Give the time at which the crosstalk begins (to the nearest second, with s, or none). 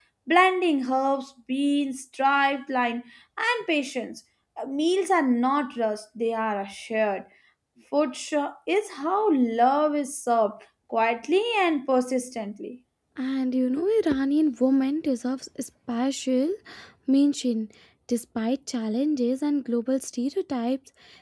none